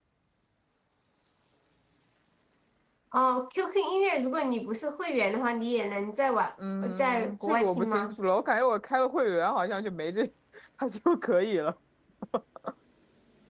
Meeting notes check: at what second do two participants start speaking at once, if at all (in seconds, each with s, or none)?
6.6 s